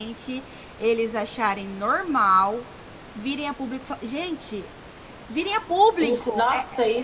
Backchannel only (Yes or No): No